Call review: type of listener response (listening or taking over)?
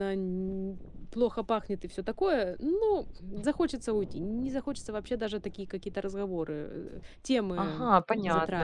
taking over